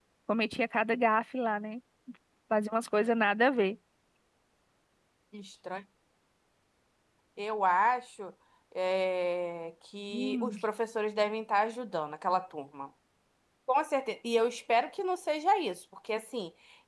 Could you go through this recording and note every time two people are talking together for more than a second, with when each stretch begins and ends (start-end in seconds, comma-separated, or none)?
none